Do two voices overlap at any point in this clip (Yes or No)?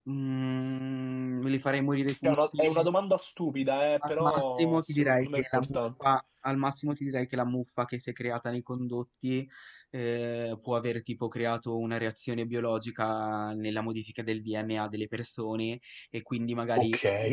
Yes